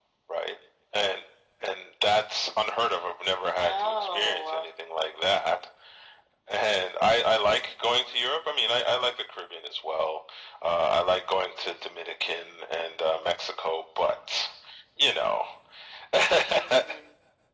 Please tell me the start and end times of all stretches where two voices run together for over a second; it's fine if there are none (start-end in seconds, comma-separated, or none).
3.4-4.7